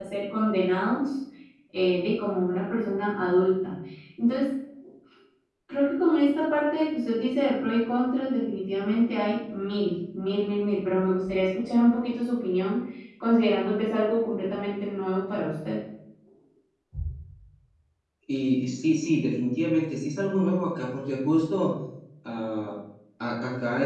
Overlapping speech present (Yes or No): No